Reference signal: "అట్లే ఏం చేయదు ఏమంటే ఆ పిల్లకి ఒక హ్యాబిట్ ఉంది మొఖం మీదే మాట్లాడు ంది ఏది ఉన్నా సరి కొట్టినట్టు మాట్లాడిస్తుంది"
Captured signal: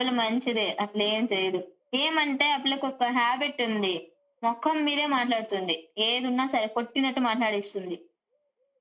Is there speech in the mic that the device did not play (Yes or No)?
No